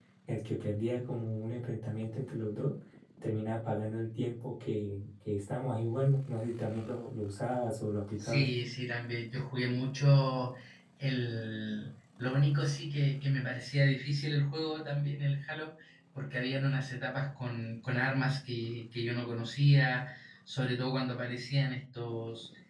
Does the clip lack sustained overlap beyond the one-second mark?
Yes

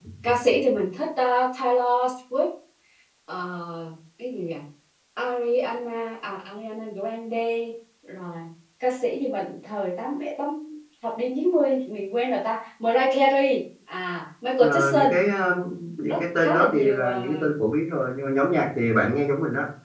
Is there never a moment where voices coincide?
No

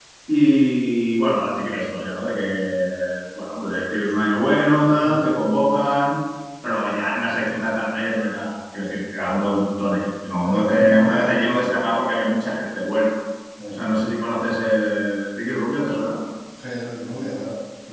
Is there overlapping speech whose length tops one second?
Yes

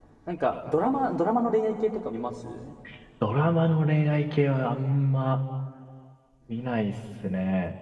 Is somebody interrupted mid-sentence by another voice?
No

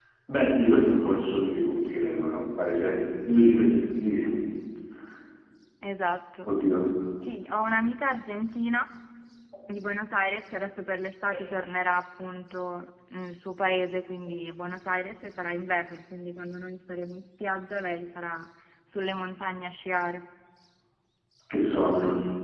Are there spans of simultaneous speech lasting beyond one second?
No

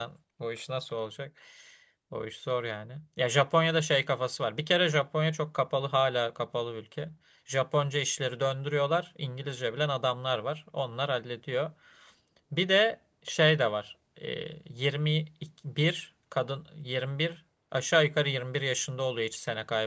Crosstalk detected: No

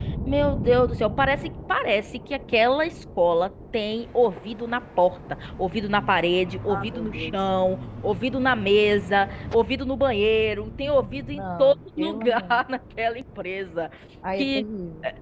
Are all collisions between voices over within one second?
No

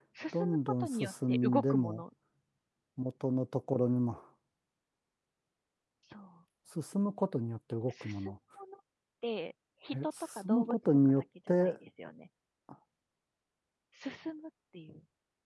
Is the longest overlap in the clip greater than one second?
Yes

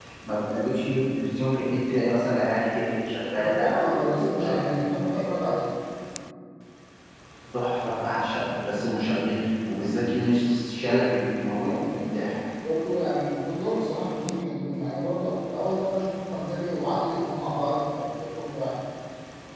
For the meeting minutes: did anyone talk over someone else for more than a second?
Yes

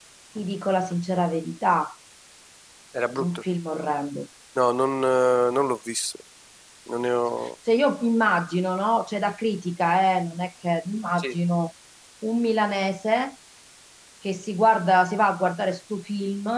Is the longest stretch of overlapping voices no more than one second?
Yes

